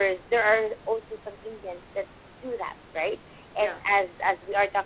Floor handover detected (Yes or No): No